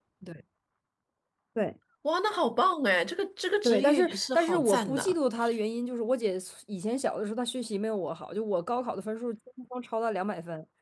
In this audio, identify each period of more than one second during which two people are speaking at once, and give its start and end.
3.6-5.1

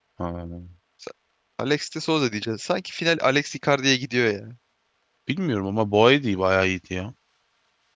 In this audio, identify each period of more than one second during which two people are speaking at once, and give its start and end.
none

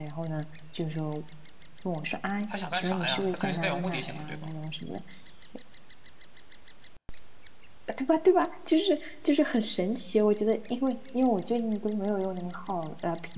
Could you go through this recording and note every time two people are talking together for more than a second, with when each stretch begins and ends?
2.5-4.5

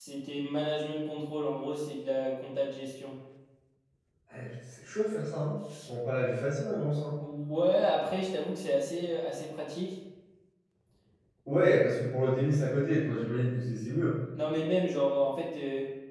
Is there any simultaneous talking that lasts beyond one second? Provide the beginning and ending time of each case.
none

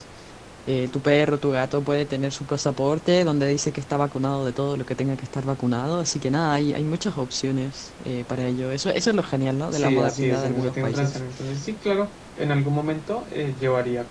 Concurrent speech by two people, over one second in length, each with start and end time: 9.7-11.2

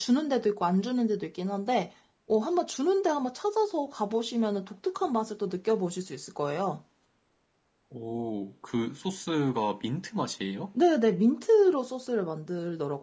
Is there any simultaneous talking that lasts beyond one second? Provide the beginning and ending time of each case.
none

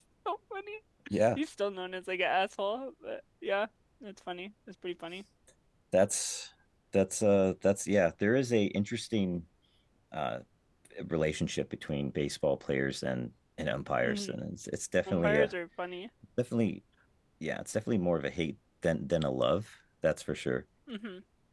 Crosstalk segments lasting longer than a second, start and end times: none

